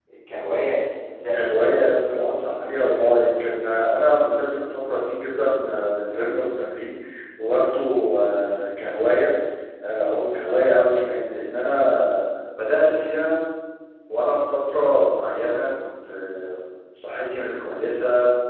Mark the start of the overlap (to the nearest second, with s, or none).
1 s